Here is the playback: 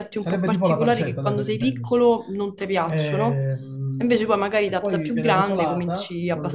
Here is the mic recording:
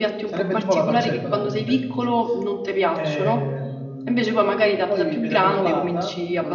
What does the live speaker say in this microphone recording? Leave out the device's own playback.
none

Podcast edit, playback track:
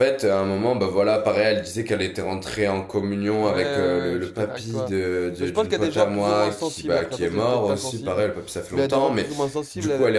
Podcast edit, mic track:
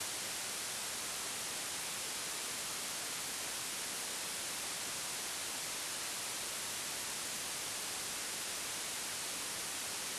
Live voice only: none

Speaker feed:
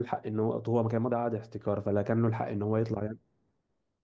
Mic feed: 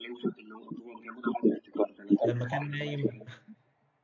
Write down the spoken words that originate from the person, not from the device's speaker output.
لما كان نايم

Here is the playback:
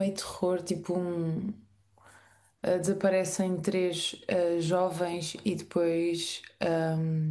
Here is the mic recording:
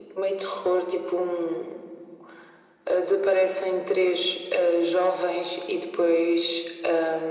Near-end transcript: none

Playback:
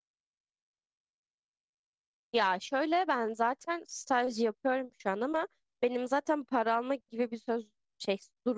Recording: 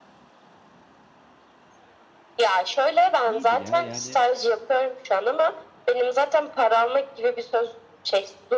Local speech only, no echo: İyiydi ya yani

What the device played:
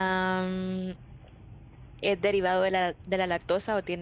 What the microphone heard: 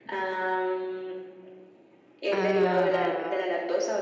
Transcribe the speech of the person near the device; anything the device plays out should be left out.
Ah,

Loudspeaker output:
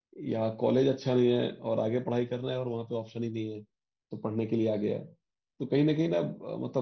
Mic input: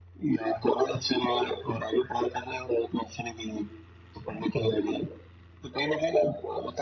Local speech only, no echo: none

